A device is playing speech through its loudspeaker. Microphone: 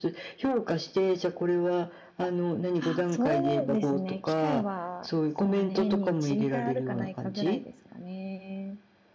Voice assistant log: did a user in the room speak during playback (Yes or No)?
Yes